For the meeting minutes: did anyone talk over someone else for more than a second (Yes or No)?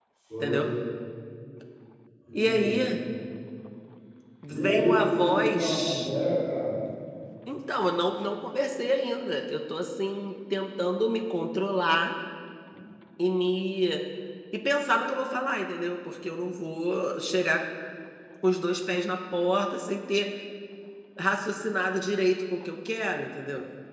Yes